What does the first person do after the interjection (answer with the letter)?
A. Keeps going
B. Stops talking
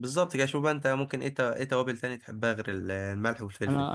B